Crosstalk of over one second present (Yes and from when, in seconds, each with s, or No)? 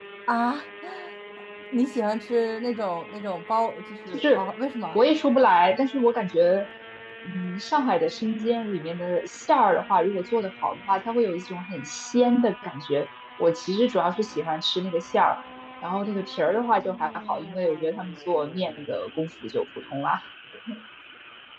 No